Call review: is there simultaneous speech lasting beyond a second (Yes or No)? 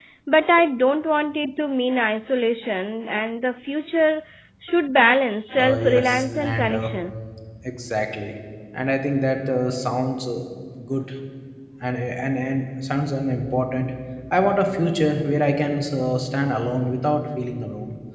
Yes